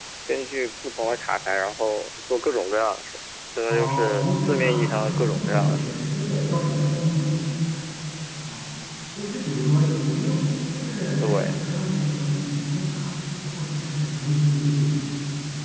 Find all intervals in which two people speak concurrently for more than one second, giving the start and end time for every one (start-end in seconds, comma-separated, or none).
3.7-5.9